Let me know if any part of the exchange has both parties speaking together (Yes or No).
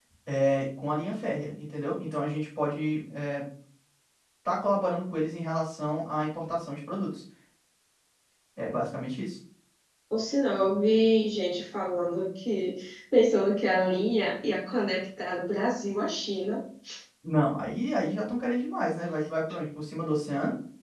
No